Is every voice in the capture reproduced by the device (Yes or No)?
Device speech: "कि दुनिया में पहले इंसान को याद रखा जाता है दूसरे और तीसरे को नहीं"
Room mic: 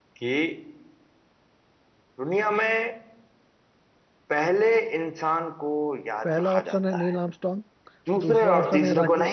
No